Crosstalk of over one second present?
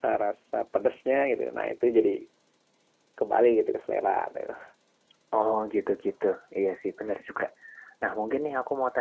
No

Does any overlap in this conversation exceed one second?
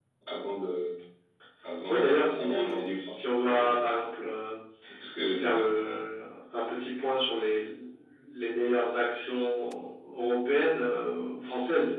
Yes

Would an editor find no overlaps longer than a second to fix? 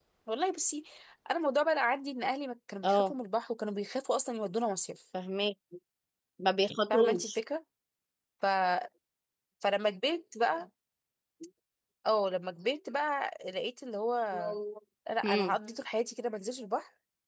Yes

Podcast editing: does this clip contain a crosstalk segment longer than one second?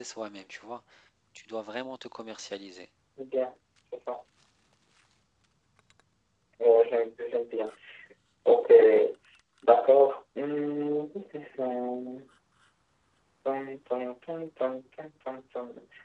No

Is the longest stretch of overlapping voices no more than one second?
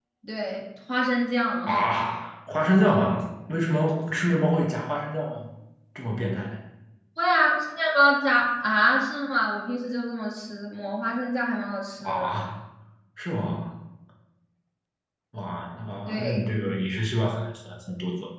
Yes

